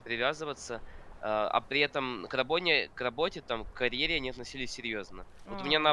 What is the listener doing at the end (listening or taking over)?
listening